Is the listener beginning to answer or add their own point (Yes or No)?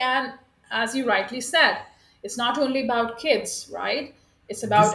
Yes